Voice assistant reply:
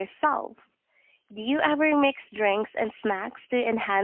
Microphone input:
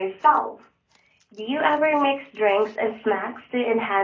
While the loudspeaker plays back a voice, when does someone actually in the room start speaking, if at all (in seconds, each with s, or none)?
none